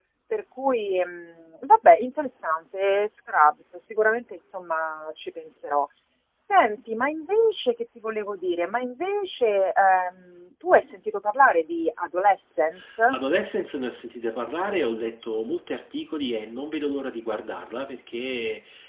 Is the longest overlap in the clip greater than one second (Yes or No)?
No